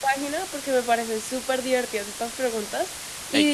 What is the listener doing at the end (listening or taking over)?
listening